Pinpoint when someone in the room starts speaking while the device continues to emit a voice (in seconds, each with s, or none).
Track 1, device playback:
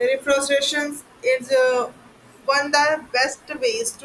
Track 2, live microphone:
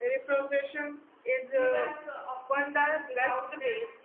1.5 s